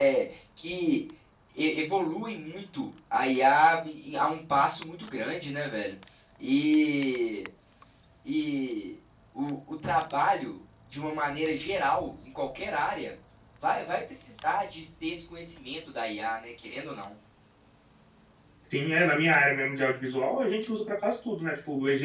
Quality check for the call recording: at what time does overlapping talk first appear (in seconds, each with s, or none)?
none